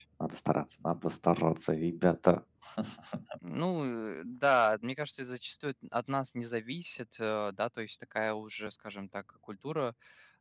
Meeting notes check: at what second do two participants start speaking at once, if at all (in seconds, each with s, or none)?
none